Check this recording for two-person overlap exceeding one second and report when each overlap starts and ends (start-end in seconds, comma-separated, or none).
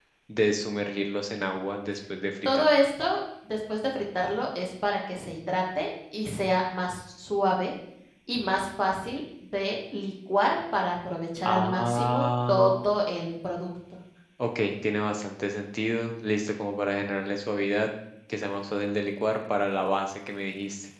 11.4-12.7